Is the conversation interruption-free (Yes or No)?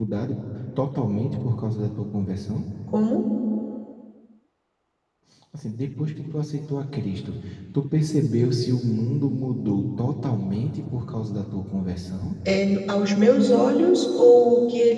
Yes